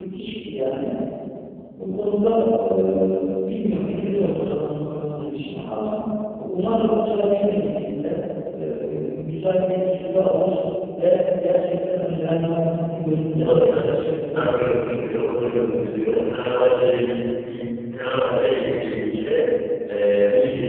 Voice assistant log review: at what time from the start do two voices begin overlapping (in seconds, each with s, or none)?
13.3 s